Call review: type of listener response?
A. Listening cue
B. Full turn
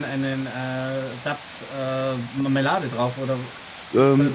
B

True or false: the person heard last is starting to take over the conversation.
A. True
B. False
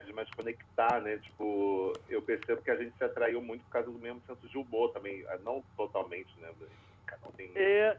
A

